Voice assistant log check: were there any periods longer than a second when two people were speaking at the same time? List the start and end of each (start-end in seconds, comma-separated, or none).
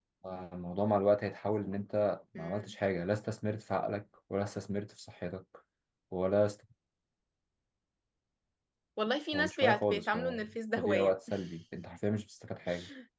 9.3-11.1